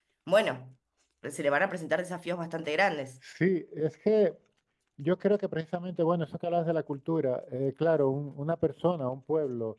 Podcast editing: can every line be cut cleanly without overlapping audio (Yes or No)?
Yes